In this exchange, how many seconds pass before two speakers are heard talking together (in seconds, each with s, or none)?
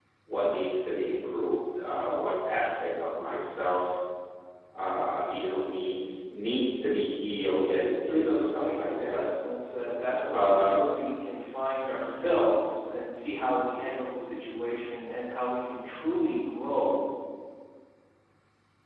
7.6 s